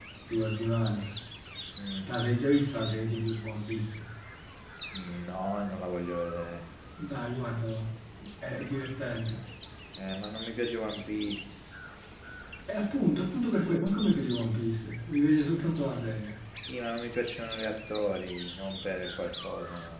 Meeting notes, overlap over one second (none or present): none